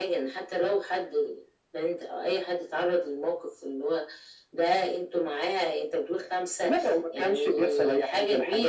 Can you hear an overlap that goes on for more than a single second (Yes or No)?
Yes